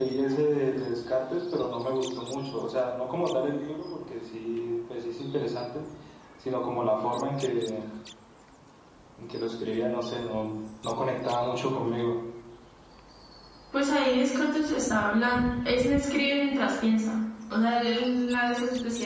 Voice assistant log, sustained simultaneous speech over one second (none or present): none